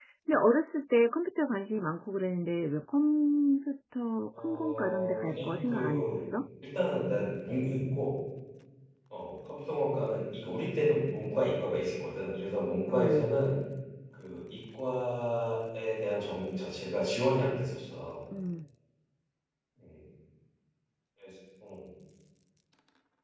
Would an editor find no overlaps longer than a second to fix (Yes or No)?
No